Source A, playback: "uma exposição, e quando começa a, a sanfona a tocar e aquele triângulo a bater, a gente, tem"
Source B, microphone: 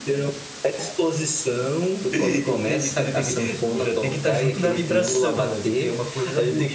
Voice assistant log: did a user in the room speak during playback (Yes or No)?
Yes